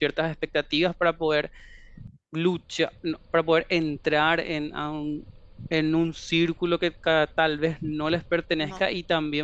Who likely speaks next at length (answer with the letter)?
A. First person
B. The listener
A